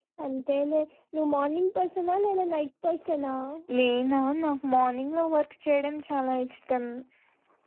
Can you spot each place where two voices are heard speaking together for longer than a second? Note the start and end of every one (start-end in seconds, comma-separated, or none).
none